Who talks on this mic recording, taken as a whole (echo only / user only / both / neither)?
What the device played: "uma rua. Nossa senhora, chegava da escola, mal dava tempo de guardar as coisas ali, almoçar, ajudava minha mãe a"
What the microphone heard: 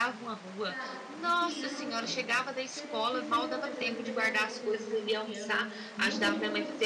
both